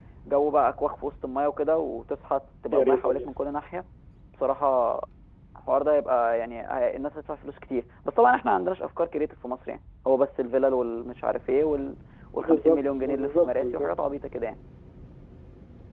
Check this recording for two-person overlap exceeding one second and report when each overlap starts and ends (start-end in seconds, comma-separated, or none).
12.4-13.9